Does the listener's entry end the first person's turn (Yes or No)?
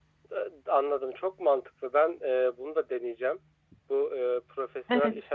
No